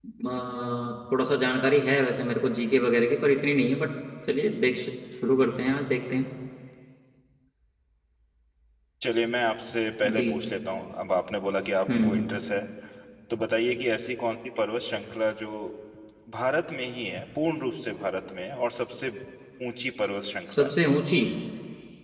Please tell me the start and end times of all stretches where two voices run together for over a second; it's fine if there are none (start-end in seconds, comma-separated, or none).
none